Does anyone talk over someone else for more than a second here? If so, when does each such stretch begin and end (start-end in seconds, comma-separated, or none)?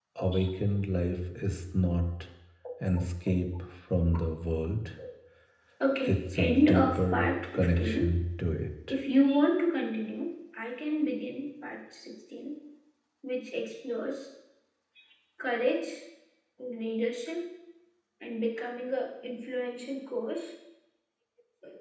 6.0-8.1